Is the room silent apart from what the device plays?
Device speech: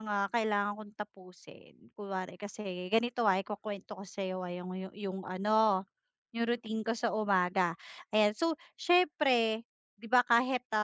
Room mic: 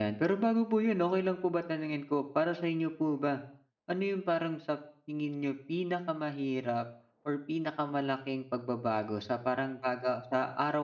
No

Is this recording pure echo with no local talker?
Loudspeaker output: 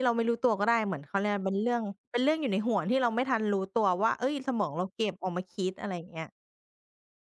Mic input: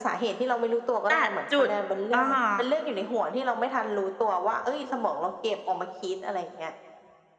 No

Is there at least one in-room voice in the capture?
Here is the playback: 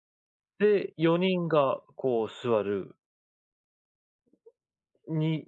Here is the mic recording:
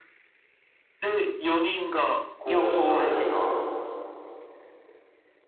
Yes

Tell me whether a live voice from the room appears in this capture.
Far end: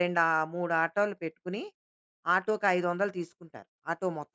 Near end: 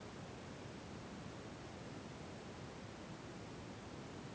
No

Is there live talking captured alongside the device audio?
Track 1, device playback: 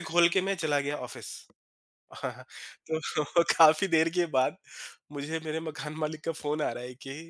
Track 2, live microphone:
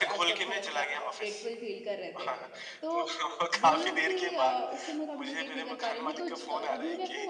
Yes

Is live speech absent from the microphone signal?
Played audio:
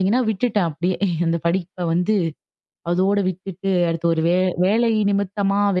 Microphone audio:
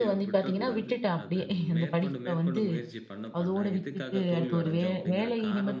No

